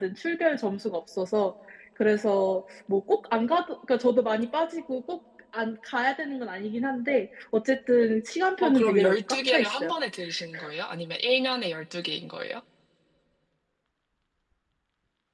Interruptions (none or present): present